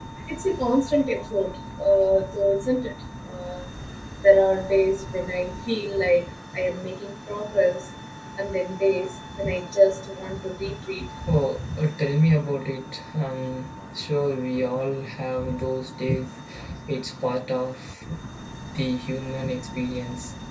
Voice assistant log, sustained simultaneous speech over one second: none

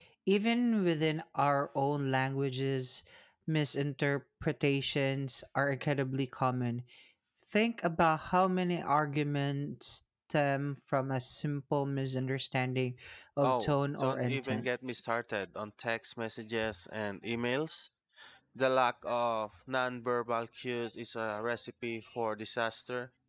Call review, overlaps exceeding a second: present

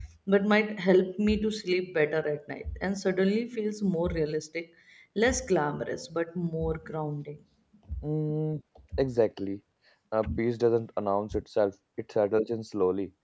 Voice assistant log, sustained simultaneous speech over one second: none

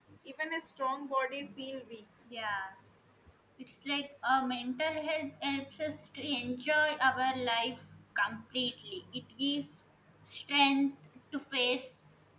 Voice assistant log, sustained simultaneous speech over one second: none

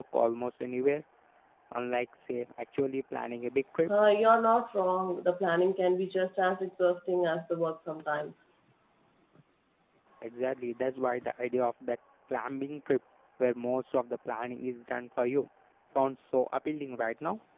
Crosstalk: none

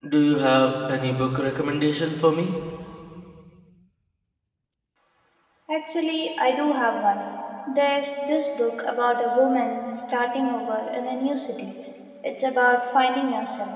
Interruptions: none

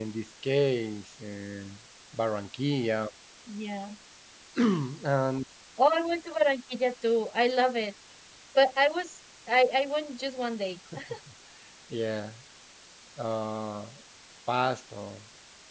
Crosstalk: none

